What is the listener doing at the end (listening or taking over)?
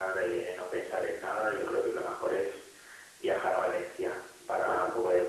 listening